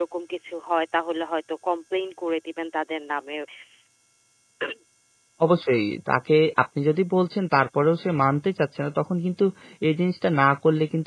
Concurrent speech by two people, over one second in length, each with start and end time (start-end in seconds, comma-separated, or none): none